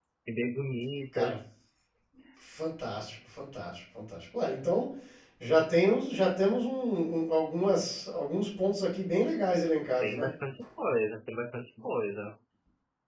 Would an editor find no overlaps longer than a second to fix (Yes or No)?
Yes